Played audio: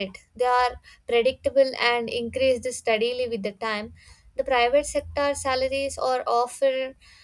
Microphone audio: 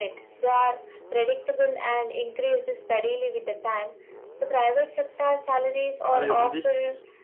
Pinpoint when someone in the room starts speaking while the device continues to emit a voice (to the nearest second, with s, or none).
6 s